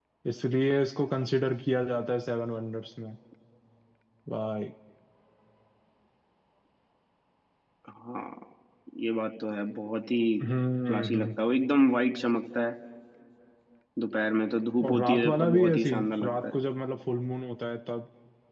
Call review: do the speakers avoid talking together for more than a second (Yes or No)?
No